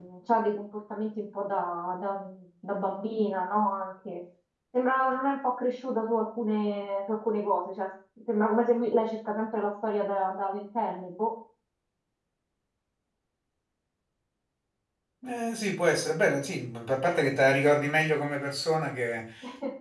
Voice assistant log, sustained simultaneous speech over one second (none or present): none